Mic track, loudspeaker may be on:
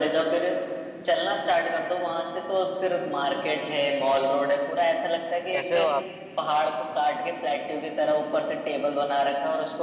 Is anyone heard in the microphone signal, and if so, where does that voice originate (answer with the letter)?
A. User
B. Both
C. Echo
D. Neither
B